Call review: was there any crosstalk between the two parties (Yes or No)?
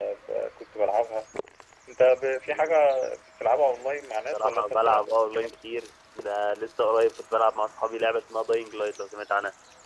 Yes